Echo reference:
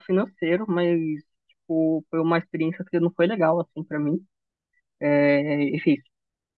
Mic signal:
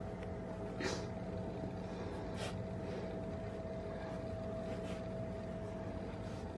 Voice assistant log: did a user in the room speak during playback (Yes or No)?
No